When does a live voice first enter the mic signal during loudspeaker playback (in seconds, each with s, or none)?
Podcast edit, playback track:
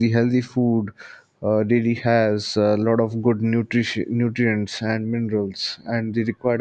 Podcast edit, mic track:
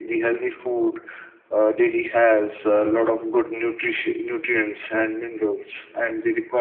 none